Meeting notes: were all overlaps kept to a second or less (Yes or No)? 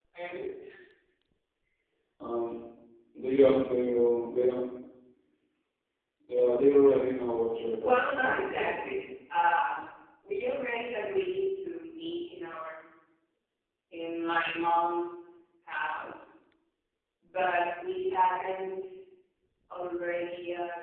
No